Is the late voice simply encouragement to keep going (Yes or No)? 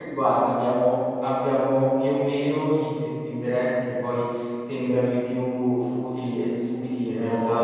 Yes